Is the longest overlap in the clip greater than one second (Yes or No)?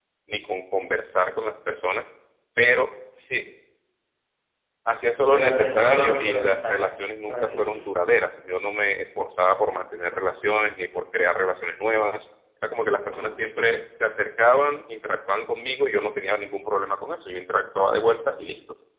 Yes